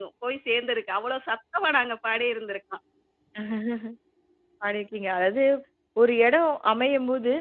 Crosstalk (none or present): none